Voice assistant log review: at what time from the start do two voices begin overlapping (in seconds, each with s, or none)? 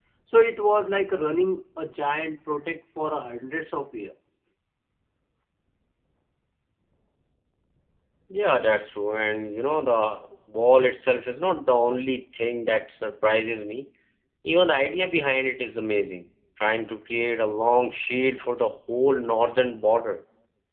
none